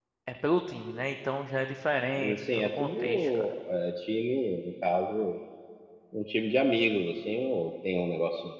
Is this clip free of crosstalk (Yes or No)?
No